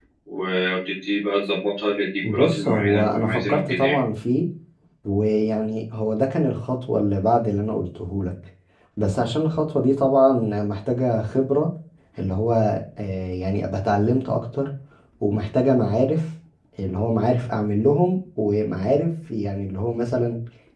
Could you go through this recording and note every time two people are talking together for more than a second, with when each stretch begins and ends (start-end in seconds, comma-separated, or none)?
2.3-4.0